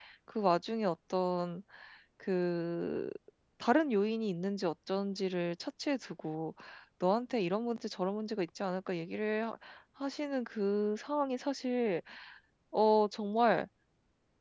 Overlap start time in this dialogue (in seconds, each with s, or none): none